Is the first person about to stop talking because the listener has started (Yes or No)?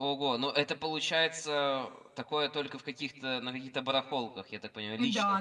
Yes